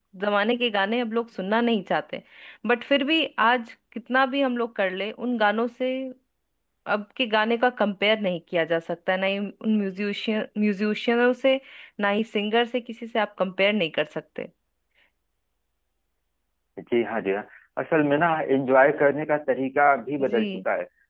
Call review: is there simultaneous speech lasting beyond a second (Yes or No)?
No